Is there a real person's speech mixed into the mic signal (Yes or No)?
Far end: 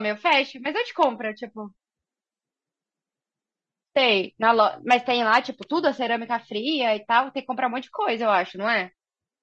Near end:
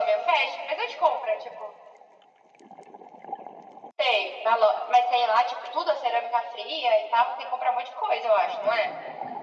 No